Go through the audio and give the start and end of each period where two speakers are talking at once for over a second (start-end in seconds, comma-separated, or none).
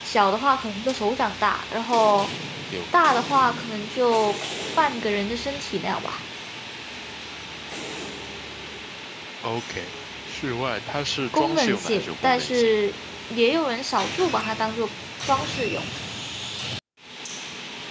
11.3-12.7